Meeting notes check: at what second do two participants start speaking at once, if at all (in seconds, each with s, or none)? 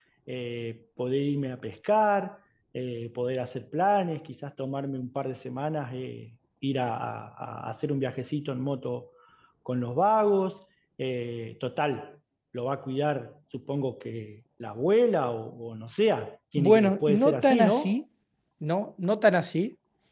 16.6 s